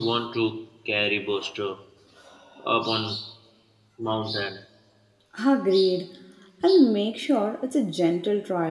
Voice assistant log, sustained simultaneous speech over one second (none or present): none